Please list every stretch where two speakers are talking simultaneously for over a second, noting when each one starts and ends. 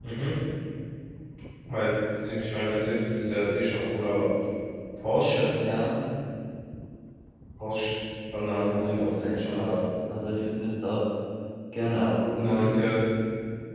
8.6-9.8

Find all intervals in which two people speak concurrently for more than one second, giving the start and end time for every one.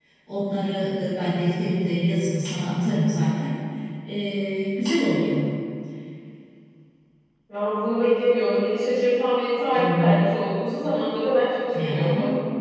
none

